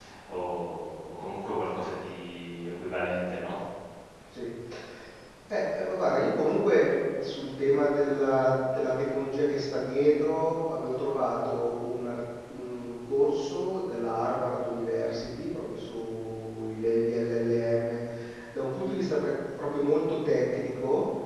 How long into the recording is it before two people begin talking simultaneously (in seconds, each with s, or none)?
none